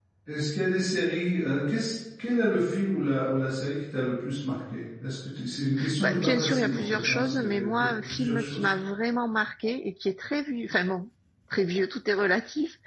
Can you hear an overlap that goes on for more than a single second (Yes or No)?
Yes